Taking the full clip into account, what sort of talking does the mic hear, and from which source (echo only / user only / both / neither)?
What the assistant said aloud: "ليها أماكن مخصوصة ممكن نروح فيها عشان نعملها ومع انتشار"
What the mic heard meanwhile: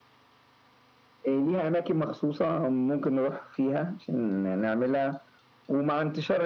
echo only